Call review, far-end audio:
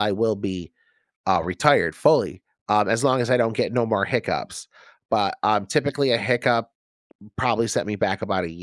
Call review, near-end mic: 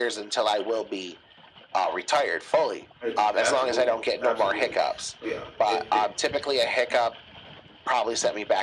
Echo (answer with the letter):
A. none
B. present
B